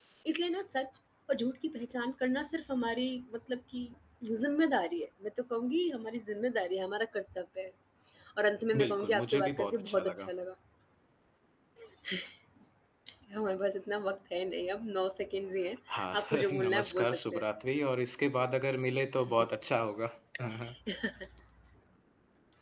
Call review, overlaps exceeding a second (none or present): present